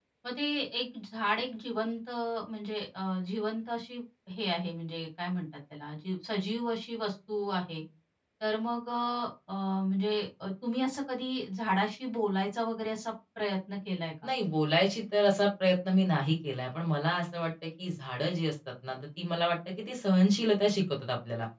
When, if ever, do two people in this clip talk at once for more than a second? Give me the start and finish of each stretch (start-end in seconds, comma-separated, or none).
none